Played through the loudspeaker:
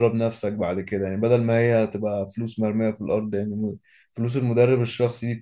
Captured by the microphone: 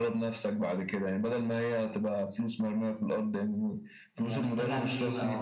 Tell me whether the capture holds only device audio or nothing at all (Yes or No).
No